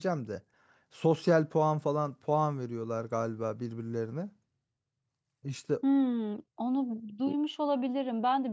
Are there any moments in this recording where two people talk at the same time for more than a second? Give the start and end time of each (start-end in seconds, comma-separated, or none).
none